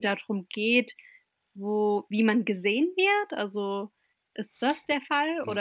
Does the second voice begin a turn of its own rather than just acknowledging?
Yes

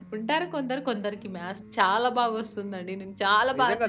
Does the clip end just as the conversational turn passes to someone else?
Yes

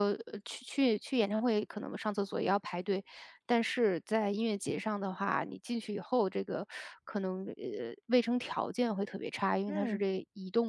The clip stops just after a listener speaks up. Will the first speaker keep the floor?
Yes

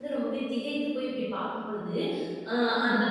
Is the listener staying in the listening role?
Yes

